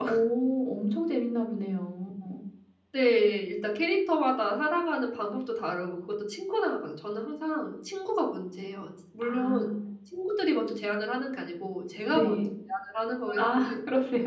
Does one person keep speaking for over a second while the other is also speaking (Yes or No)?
No